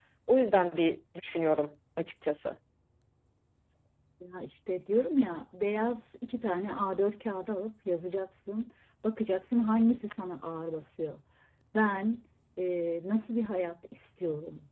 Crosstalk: none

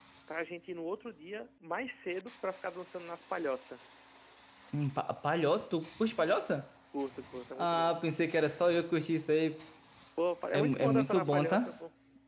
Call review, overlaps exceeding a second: present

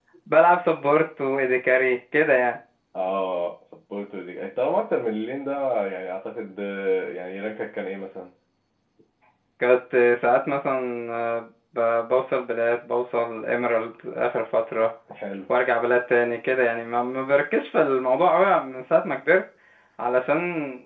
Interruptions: none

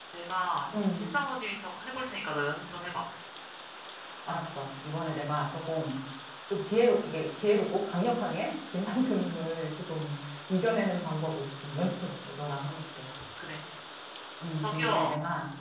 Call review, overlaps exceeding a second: none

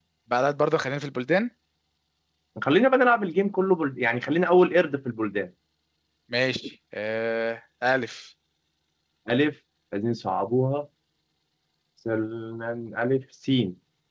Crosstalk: none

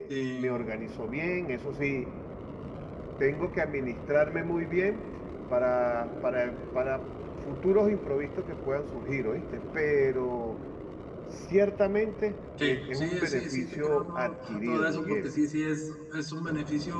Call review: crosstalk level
present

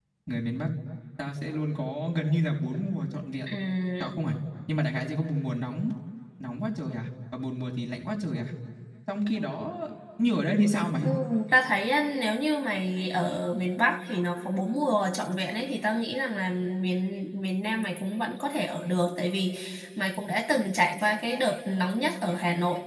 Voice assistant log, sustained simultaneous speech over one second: none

